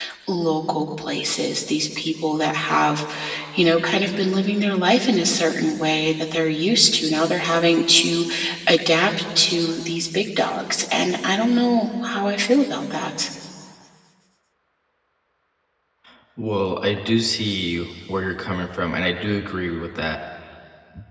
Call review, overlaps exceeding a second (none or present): none